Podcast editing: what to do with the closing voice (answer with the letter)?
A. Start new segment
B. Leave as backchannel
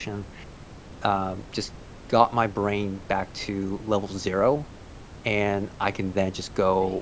B